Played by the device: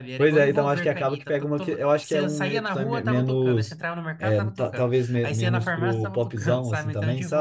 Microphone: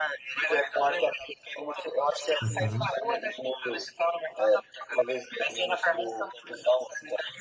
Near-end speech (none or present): present